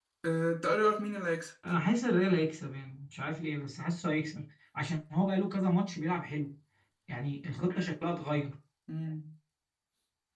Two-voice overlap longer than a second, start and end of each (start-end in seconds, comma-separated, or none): none